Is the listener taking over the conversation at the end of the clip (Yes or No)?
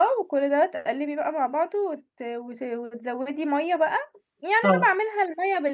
No